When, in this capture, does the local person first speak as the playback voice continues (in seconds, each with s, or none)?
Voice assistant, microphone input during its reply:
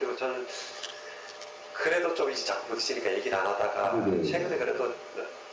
3.8 s